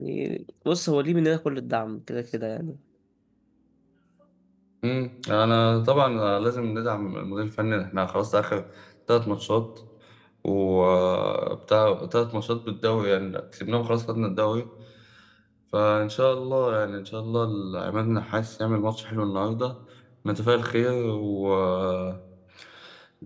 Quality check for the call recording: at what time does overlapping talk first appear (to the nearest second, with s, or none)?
none